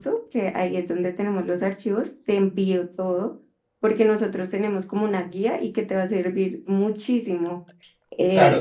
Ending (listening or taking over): taking over